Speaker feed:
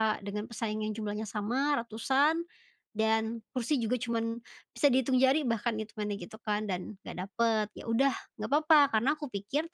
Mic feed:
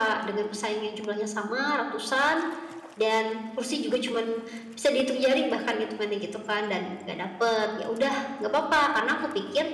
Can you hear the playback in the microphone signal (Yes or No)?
Yes